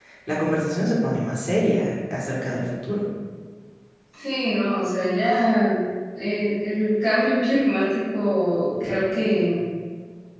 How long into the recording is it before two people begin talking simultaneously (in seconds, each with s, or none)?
none